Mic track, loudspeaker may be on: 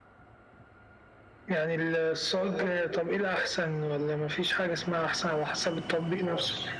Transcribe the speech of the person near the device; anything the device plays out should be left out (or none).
none